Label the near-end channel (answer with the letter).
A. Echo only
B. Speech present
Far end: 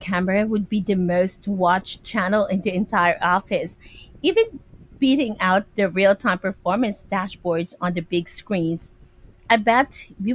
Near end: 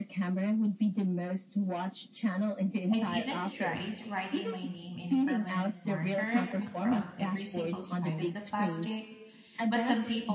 B